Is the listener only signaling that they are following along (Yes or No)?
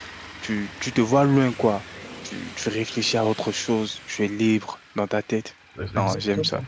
No